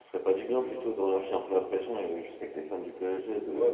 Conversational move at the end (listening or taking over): taking over